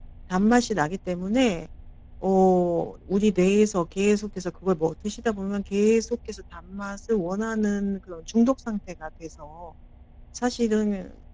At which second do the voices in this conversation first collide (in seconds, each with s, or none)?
none